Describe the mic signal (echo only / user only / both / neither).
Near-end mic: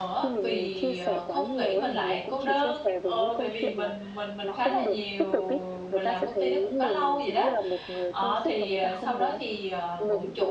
both